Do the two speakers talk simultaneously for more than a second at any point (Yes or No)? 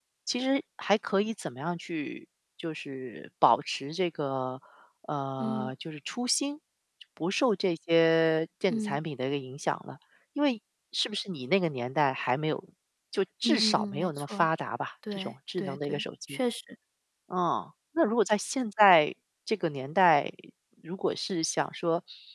Yes